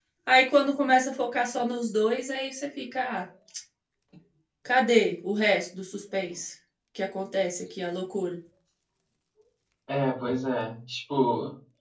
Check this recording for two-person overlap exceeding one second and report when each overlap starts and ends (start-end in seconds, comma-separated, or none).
none